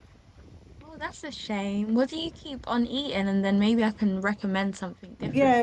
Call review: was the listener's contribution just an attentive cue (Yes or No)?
No